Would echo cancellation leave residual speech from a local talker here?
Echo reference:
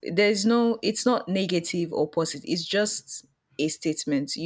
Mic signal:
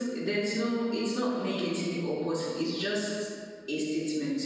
No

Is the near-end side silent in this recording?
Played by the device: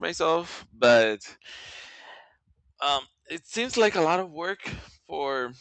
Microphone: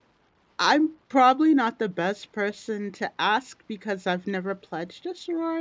No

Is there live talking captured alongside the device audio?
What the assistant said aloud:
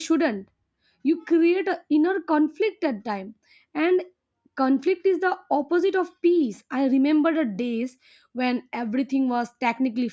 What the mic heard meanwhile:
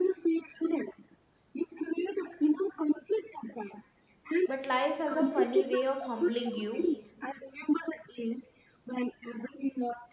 Yes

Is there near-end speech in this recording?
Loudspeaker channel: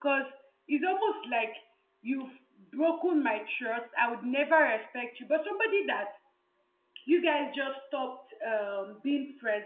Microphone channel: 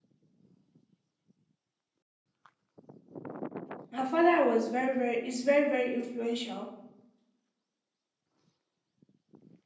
Yes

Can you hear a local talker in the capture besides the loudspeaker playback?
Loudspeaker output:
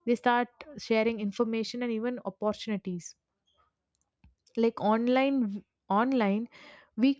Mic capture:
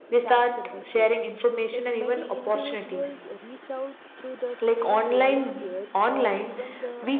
Yes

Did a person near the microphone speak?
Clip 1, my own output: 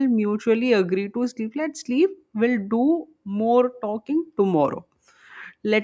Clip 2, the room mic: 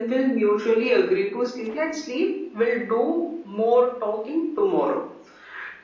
No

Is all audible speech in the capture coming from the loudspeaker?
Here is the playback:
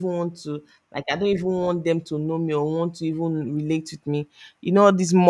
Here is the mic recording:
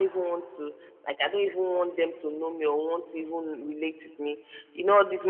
Yes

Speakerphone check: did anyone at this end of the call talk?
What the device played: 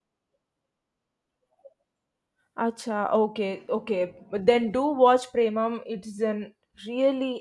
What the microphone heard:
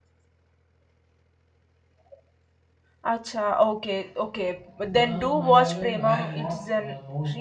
Yes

